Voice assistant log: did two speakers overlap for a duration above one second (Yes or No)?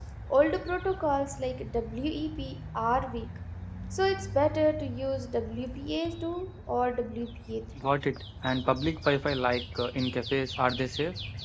No